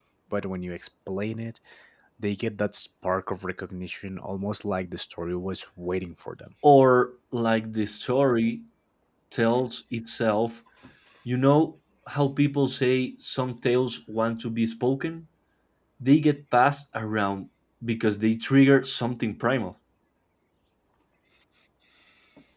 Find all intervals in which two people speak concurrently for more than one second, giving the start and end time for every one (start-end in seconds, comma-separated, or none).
none